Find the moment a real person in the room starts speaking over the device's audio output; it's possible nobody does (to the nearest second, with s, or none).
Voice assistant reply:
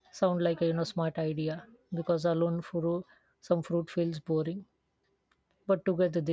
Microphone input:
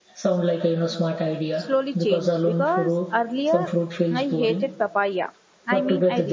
2 s